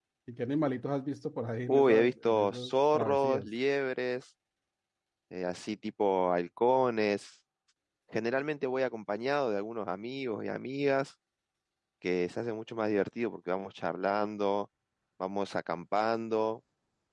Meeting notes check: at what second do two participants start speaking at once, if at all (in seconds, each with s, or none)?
1.7 s